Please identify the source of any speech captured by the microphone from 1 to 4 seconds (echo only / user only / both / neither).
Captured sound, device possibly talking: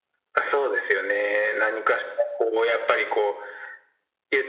echo only